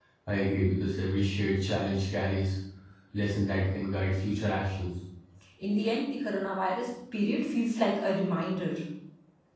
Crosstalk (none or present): none